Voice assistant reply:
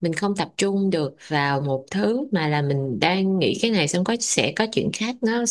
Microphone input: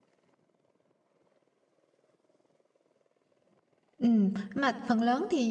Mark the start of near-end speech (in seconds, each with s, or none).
4.0 s